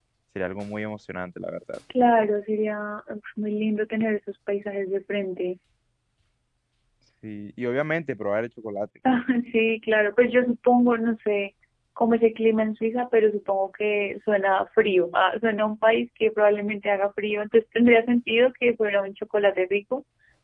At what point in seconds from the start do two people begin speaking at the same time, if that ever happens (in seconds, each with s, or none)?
none